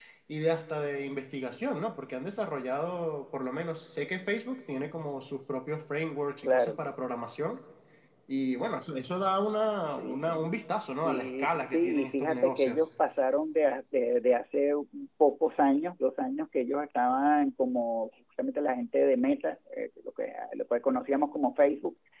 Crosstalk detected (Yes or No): Yes